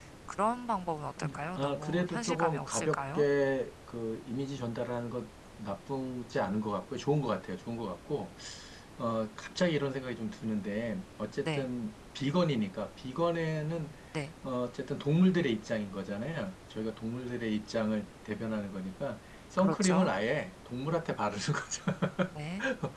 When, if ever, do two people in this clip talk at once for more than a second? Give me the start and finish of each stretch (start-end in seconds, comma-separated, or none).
1.2-3.2